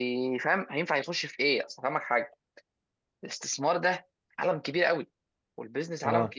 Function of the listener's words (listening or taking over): listening